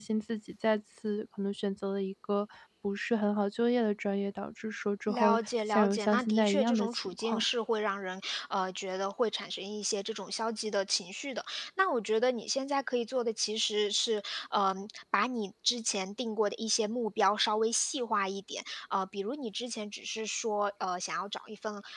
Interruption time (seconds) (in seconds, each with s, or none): 5.1 s